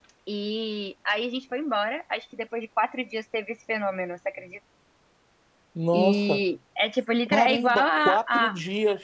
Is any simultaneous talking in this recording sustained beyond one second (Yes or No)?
Yes